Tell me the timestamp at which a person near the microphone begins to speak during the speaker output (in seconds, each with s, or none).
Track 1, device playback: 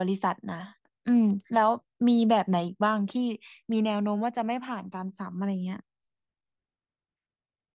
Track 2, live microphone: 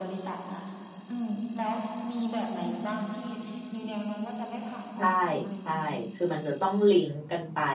4.9 s